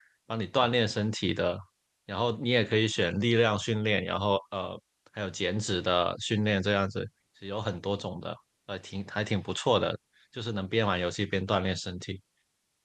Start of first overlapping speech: none

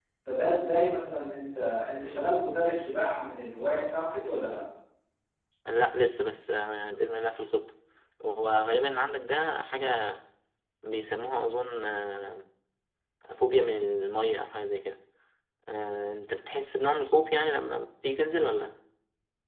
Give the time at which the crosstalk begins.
none

